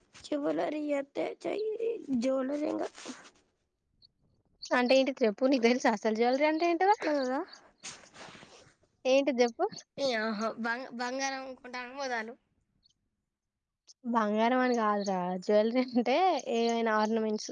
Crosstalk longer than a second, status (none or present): none